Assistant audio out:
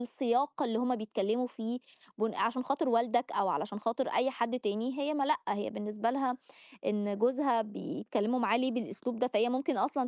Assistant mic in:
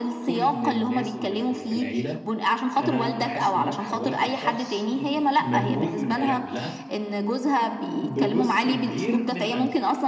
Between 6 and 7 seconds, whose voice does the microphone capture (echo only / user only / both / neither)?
both